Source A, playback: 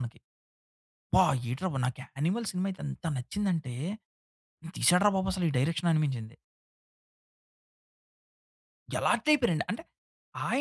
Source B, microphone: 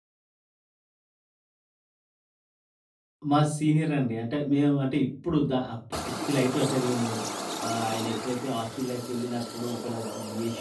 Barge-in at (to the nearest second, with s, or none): 3 s